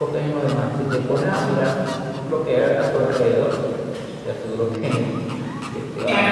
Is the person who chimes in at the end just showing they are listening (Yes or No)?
No